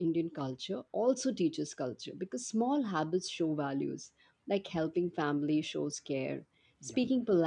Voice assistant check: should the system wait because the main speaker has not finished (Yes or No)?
Yes